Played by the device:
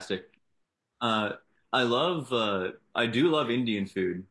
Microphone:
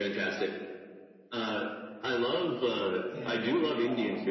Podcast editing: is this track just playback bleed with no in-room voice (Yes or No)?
No